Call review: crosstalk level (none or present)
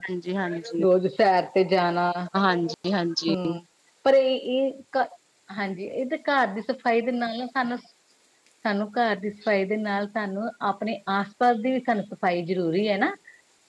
none